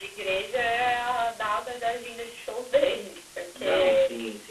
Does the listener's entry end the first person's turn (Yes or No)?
Yes